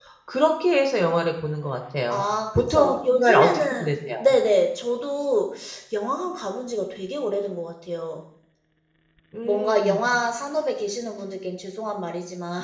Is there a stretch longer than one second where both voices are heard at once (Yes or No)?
Yes